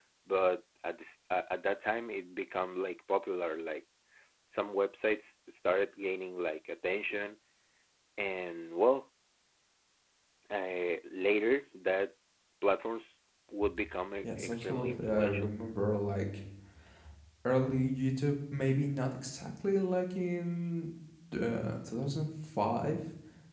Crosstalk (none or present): present